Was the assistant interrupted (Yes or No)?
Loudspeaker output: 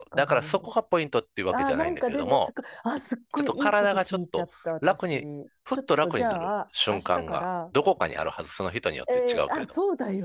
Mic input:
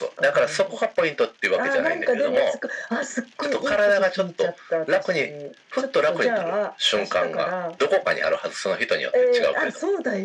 No